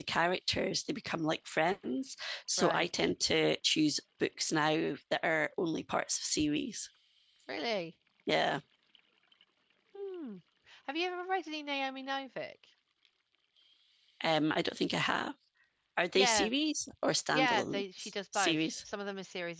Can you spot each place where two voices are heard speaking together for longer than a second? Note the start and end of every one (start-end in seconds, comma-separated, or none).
17.3-18.7